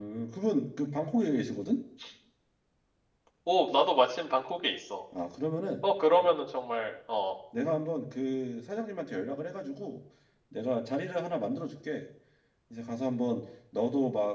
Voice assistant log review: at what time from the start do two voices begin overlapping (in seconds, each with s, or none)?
none